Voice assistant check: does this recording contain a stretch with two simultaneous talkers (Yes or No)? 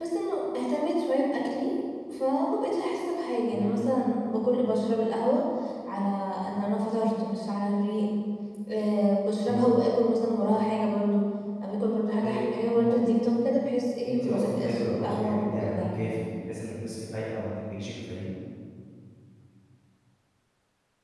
Yes